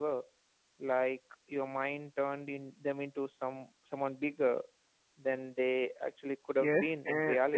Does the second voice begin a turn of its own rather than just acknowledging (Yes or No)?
Yes